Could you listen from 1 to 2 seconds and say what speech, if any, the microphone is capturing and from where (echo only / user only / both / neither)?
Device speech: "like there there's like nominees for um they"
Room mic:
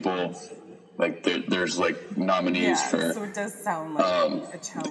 echo only